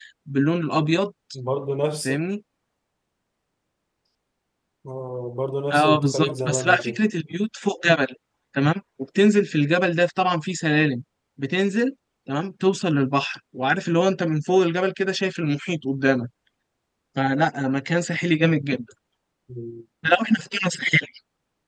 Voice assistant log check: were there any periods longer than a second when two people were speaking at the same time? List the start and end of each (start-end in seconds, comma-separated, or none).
5.7-7.0